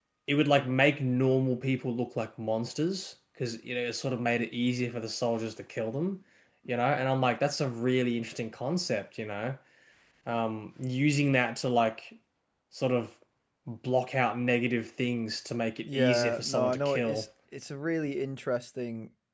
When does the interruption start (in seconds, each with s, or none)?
15.8 s